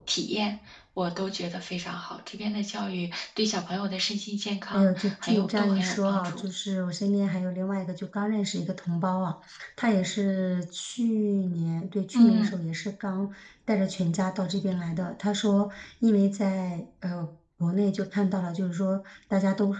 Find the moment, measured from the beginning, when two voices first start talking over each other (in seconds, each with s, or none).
4.7 s